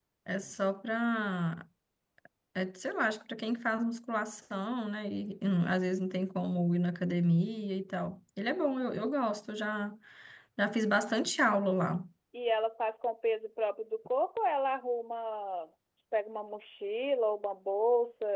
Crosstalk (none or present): none